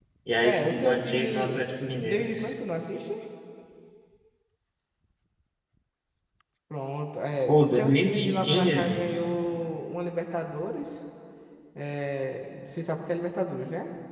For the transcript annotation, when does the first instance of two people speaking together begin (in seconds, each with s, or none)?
0.5 s